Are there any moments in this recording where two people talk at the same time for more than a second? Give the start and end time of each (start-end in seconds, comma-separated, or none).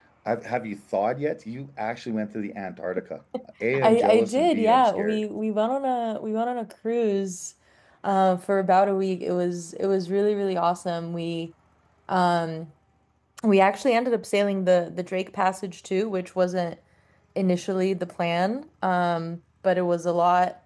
3.7-5.2